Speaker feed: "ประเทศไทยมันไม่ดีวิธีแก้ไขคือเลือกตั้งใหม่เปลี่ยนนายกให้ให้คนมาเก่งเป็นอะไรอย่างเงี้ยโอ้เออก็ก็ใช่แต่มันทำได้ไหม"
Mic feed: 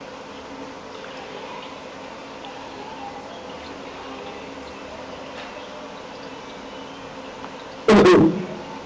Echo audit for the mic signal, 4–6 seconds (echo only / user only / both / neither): neither